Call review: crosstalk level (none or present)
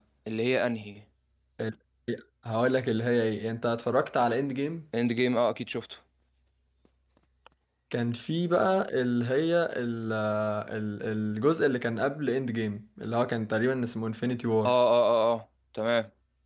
none